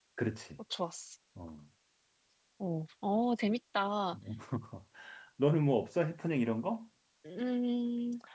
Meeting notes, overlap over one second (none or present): none